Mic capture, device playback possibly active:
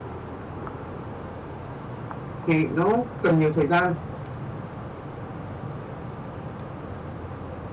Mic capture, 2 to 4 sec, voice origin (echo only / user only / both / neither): user only